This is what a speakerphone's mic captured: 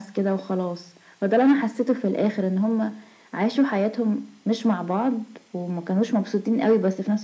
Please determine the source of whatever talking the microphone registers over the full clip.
echo only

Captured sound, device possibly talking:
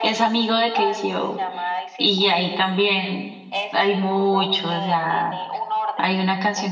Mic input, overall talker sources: both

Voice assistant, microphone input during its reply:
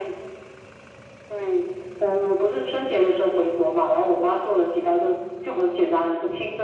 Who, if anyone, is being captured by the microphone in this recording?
echo only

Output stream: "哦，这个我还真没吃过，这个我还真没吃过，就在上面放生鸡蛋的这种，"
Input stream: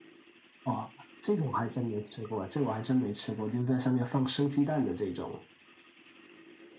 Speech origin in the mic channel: echo only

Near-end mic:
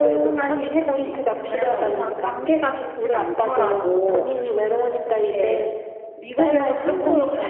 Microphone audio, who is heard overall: both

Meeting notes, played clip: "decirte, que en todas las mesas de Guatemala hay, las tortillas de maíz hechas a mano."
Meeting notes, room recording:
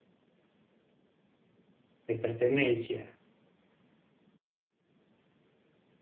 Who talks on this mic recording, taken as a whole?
user only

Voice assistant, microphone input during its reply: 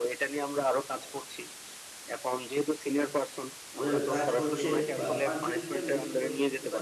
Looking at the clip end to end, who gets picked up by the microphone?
both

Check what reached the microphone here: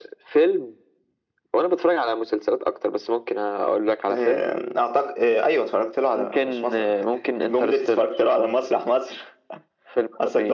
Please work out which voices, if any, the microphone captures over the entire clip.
echo only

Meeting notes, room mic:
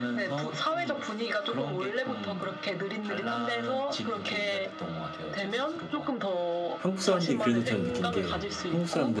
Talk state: both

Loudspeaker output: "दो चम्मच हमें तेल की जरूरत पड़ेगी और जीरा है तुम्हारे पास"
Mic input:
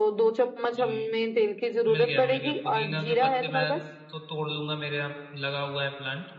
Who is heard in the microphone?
both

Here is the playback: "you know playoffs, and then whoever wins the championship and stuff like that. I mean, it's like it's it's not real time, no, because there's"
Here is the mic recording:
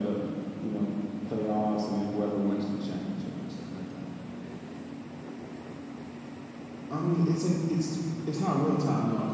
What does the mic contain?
echo only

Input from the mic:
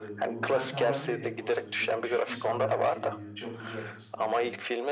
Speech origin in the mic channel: both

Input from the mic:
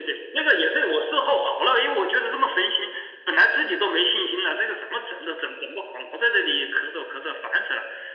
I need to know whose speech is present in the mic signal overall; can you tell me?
echo only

